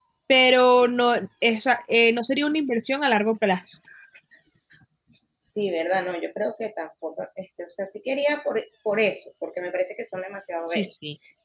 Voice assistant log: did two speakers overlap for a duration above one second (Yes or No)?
No